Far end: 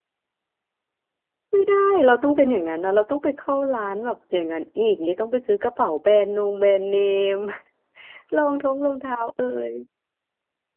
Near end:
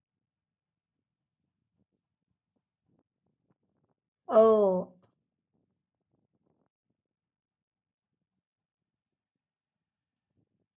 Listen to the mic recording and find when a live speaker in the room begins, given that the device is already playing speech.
4.3 s

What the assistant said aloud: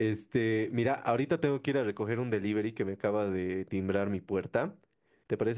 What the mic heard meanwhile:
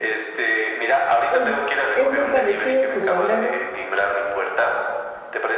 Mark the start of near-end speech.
1.3 s

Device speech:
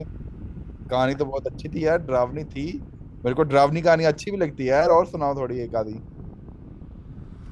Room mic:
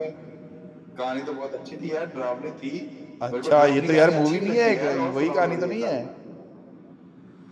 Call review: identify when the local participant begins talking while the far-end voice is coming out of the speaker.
3.2 s

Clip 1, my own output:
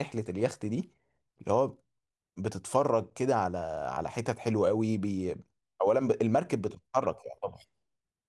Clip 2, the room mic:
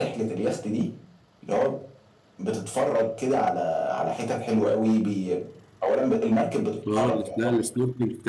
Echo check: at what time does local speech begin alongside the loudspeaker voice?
6.9 s

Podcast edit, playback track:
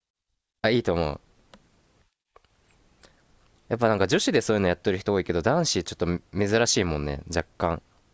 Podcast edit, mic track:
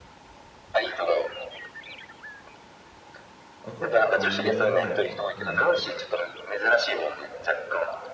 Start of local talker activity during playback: 3.6 s

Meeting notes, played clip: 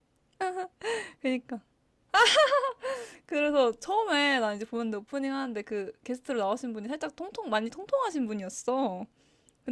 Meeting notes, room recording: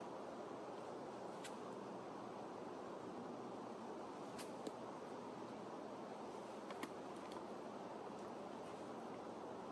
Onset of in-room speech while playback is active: none

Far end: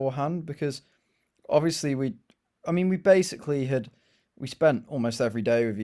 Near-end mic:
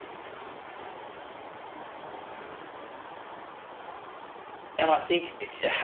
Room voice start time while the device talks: 4.8 s

